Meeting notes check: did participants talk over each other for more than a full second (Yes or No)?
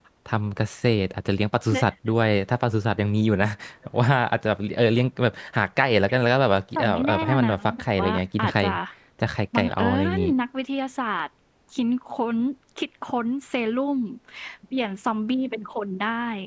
Yes